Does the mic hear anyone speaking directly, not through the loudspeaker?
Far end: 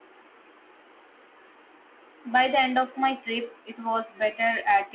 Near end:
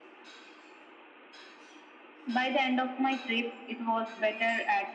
No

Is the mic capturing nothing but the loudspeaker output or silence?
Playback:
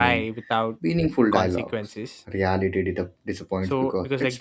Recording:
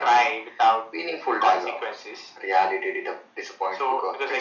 Yes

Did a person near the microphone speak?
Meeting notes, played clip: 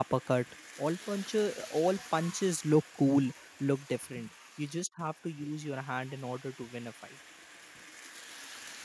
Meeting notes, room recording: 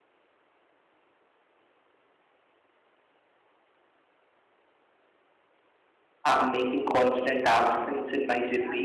Yes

